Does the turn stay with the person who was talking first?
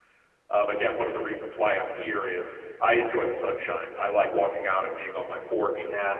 No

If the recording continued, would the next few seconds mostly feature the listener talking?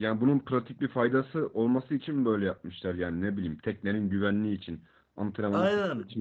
Yes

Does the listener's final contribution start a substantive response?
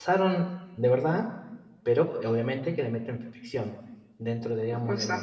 No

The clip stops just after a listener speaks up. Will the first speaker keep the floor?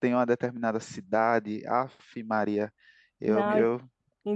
No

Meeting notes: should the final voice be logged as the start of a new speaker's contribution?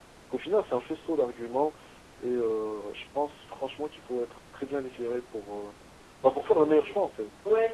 Yes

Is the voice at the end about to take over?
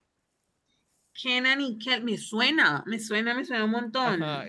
Yes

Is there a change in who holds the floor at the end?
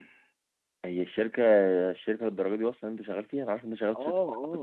Yes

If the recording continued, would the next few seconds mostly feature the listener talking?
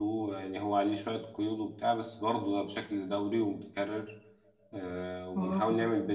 No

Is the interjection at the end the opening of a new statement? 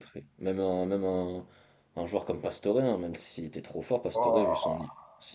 No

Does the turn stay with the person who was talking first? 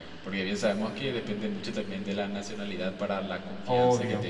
Yes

